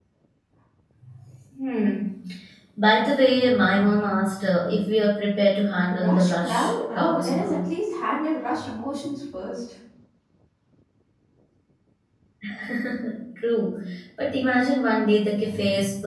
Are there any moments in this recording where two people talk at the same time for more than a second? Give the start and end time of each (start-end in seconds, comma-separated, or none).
5.9-7.6